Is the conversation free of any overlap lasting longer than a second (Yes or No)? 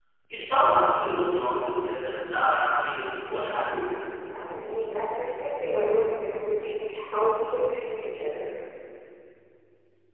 Yes